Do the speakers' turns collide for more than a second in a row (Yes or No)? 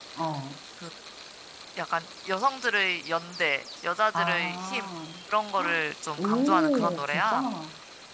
Yes